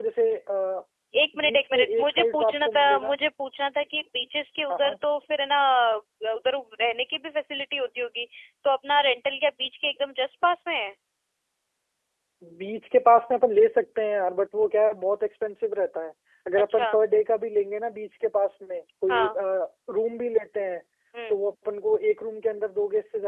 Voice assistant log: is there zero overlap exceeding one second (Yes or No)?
No